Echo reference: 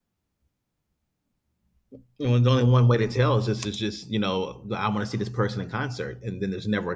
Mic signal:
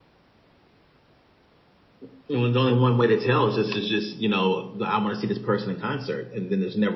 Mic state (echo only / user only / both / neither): echo only